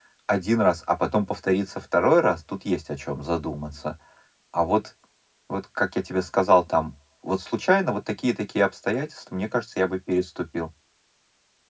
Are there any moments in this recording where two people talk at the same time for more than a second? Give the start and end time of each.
none

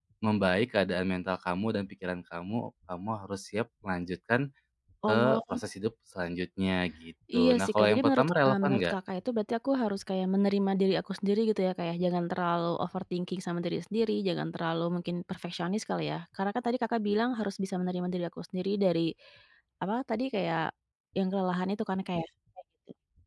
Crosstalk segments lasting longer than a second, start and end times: 7.3-8.9

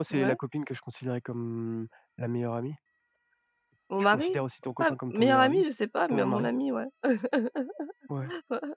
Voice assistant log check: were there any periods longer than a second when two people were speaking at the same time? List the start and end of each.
4.1-5.6

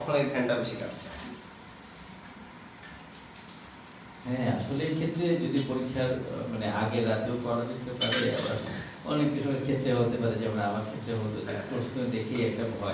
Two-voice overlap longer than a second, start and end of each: none

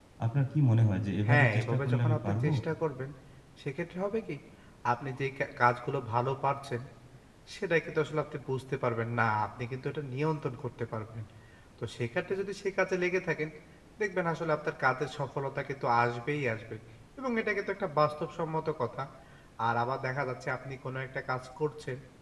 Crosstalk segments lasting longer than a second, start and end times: 1.3-2.5

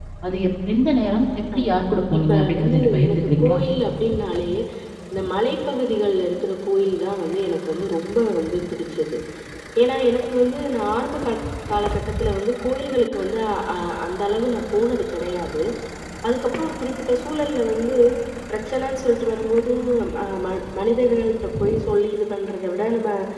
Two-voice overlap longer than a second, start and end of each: 2.2-3.6

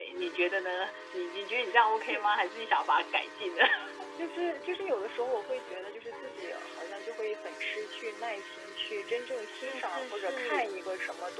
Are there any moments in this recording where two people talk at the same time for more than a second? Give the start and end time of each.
9.5-10.7

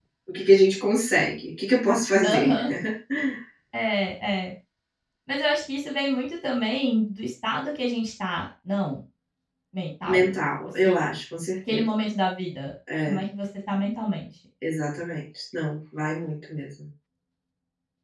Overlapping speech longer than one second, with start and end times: none

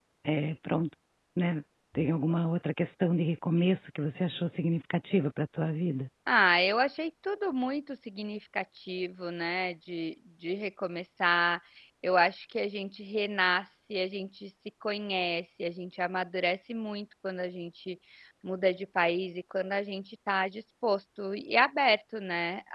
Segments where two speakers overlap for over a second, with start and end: none

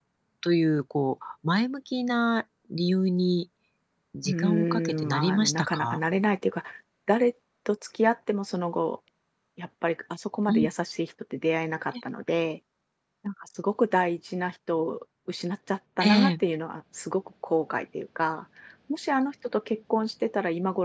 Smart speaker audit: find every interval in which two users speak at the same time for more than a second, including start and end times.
4.2-6.0

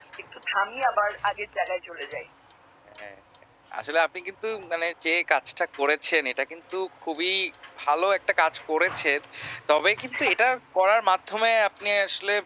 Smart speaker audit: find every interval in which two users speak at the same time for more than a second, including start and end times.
none

